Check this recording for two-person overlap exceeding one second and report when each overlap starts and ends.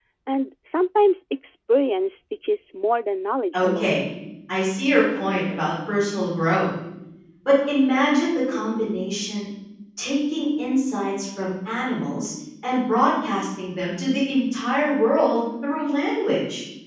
none

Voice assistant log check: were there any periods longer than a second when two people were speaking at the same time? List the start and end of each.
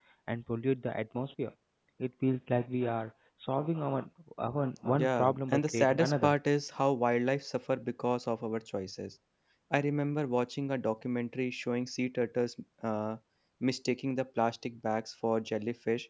4.9-6.3

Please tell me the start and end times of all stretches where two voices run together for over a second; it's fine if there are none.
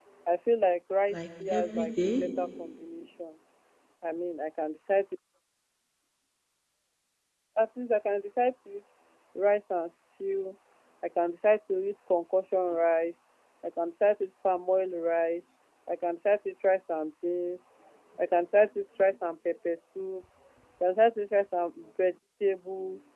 1.1-2.7

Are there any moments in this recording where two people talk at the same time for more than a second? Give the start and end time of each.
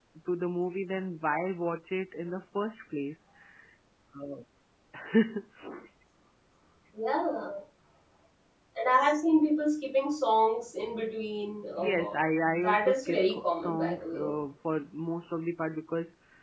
12.6-14.3

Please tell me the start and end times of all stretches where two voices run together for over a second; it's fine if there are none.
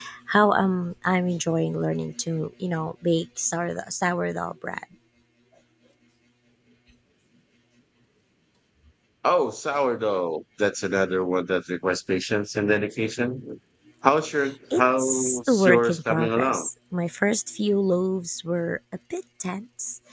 14.8-16.7

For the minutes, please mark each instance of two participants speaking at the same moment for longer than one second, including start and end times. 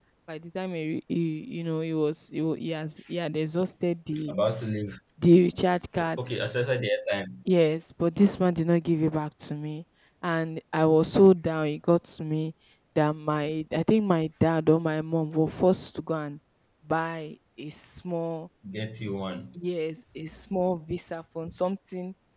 none

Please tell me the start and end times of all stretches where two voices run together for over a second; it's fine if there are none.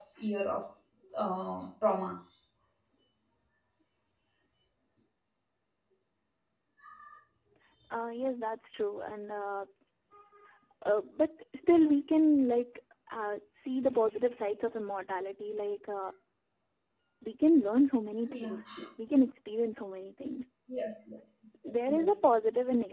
none

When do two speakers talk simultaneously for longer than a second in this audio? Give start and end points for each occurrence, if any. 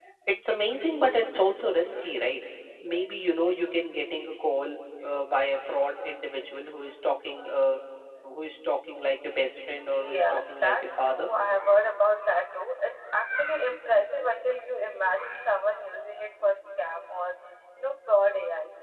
9.9-11.3

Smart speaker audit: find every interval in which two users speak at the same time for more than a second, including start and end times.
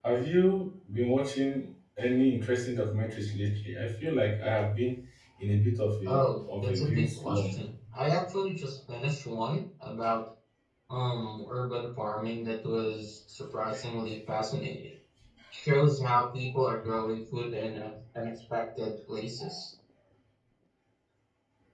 6.1-7.6

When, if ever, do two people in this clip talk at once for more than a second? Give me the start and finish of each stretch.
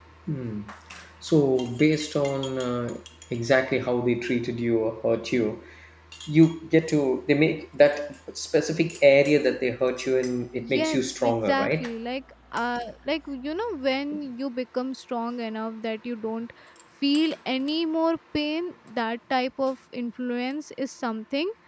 10.6-11.8

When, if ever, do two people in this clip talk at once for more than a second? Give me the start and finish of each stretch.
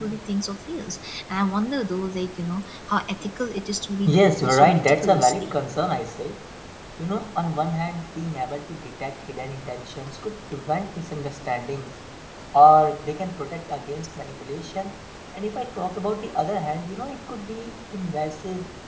4.0-5.5

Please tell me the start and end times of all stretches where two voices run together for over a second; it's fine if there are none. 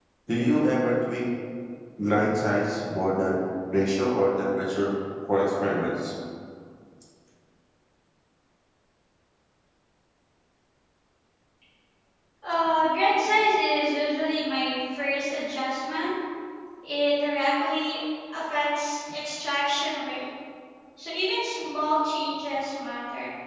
none

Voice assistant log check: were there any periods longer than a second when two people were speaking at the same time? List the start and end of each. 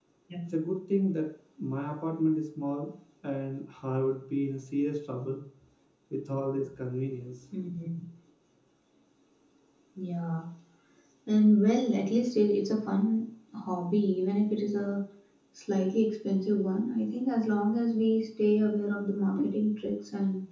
none

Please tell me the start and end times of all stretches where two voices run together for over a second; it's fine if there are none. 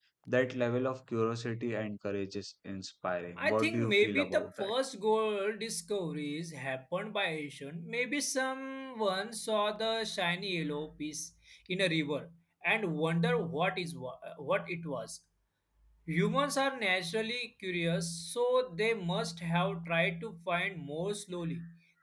3.5-4.7

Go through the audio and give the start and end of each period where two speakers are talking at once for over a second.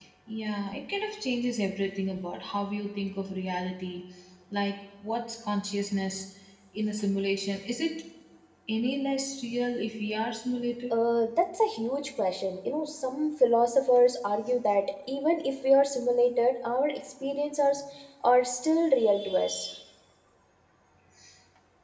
none

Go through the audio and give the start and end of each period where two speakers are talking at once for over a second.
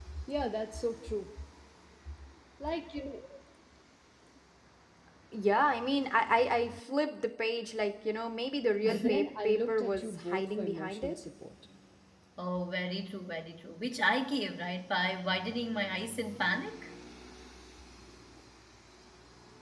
8.8-11.2

